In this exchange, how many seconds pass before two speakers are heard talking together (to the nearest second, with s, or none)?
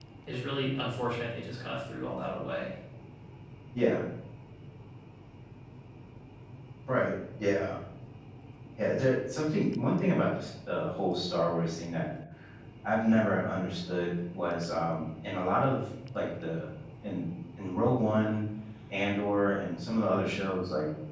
none